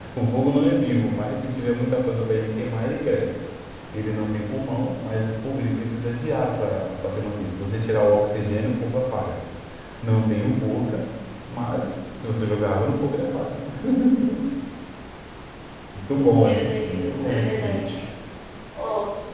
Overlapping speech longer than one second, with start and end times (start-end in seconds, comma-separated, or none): 16.4-17.8